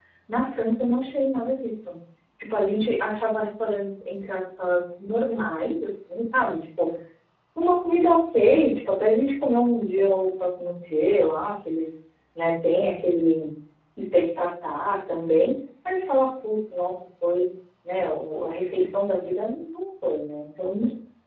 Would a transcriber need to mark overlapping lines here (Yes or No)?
No